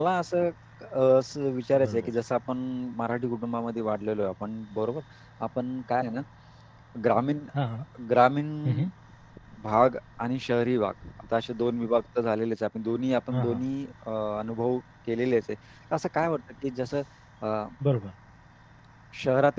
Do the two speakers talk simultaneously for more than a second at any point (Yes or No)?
No